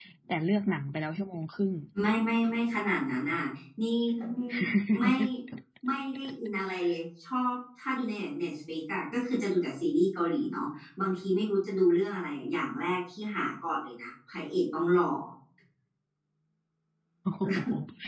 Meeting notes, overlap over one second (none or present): none